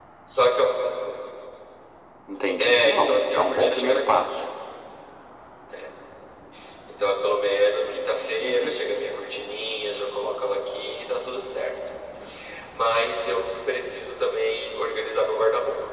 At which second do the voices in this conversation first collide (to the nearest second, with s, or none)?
3 s